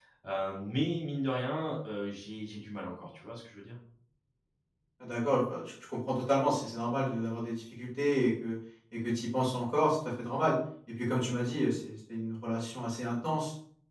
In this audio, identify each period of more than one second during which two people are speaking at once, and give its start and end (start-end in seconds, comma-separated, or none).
none